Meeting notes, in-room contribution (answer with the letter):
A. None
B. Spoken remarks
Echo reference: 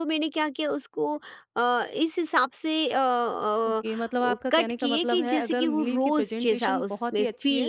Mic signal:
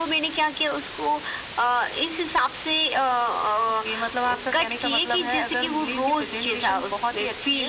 A